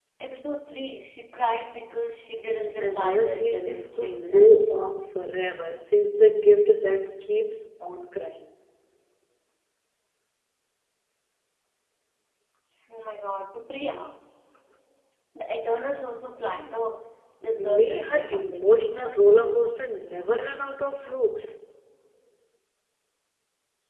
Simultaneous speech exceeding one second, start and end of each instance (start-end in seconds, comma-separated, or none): 2.5-4.7, 17.6-18.8